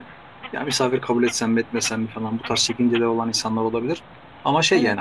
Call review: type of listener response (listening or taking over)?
listening